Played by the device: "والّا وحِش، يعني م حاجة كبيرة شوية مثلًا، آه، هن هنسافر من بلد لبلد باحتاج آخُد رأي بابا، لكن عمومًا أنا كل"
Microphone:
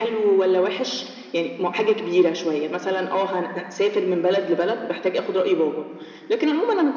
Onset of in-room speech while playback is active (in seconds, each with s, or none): none